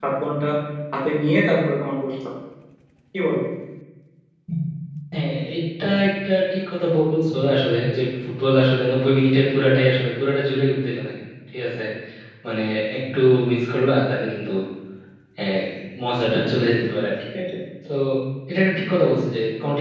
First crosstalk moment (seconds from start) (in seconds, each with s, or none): none